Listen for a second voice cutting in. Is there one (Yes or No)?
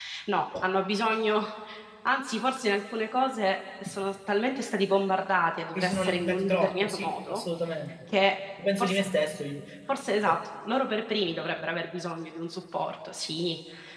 Yes